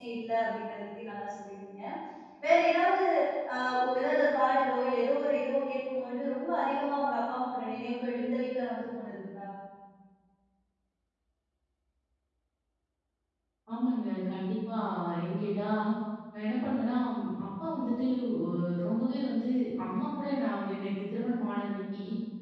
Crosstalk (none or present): none